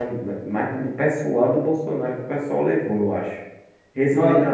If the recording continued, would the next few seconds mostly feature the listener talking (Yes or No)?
Yes